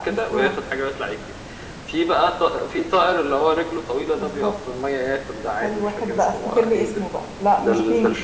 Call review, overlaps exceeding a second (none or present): present